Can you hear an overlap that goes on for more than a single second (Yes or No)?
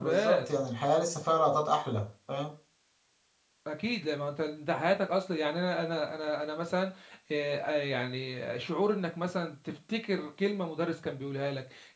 No